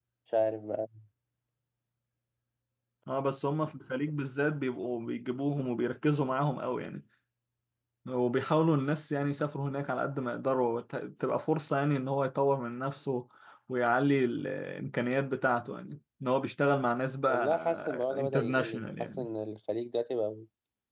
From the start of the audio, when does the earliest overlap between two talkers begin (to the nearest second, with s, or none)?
17 s